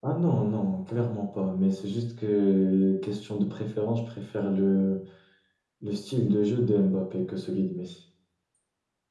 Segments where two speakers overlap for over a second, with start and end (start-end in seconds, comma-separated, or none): none